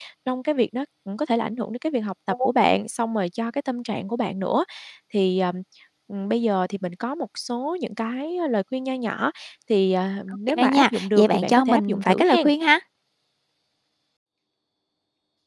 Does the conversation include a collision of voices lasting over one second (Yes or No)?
Yes